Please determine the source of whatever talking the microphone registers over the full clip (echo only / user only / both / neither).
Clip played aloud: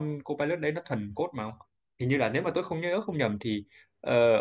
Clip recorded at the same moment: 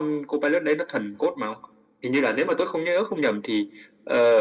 echo only